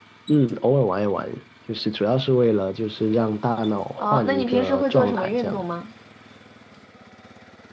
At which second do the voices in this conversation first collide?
4.0 s

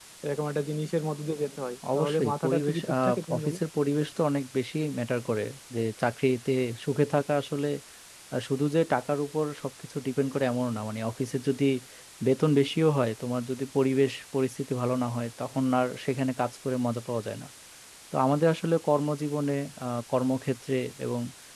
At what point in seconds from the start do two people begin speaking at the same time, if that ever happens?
1.8 s

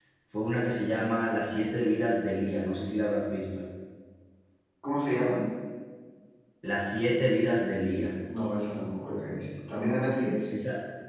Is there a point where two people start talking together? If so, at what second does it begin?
none

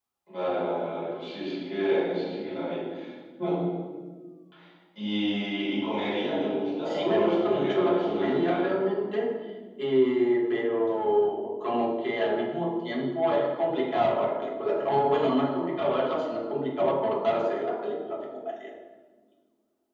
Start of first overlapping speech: 6.8 s

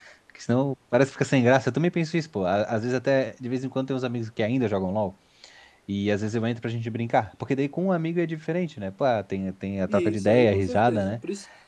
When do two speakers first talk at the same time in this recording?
9.9 s

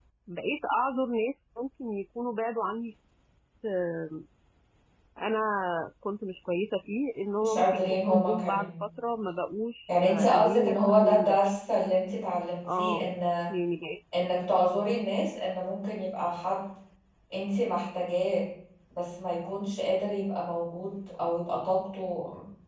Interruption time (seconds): 7.4 s

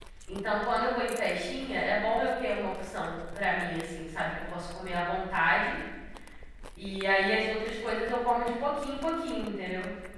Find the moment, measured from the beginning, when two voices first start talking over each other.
none

